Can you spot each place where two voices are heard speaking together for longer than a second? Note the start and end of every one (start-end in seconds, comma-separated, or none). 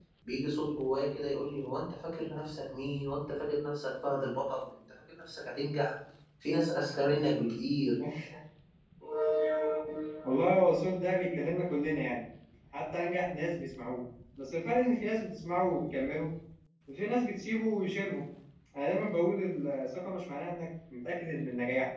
none